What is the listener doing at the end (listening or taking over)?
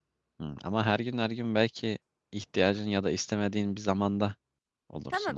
taking over